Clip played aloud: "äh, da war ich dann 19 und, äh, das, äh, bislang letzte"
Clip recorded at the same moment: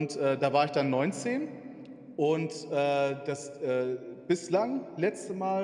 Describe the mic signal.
echo only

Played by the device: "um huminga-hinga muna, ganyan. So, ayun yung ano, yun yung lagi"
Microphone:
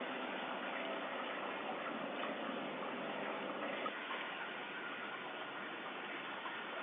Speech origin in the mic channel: neither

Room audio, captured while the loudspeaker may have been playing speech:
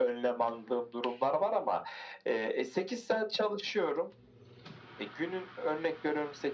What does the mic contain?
echo only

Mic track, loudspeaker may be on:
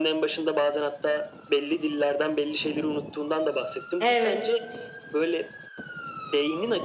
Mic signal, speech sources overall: both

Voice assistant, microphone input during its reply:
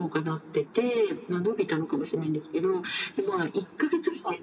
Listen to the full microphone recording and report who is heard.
echo only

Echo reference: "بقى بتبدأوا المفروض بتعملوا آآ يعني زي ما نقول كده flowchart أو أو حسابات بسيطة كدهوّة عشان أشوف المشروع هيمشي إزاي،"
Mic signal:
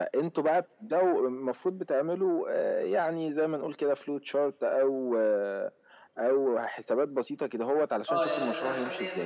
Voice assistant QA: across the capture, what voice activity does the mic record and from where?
both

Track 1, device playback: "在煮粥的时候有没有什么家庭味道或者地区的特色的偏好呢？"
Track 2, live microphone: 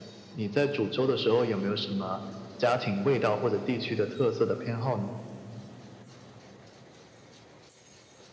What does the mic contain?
echo only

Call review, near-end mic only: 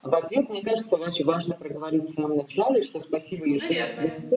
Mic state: both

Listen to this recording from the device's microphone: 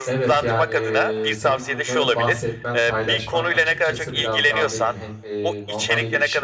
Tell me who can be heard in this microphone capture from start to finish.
both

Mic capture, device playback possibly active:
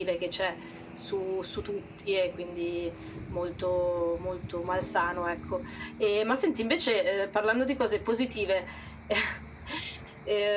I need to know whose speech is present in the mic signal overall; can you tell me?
echo only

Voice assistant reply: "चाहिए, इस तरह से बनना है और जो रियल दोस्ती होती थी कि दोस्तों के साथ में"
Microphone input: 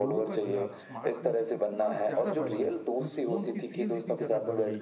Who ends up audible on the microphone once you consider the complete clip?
both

